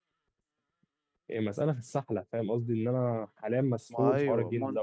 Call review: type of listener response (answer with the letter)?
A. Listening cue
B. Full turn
B